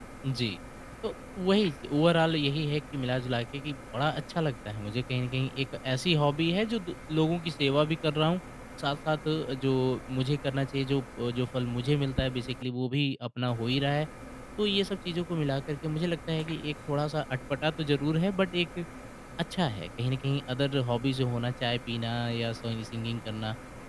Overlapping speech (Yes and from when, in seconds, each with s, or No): No